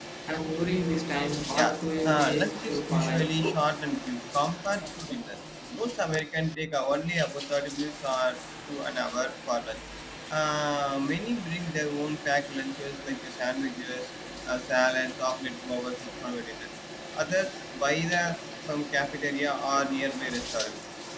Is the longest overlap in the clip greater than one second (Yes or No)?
Yes